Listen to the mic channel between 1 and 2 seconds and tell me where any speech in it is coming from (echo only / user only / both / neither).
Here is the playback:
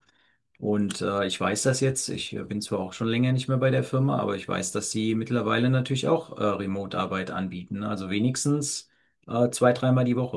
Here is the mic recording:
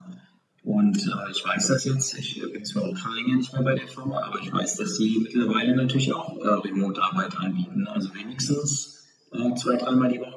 echo only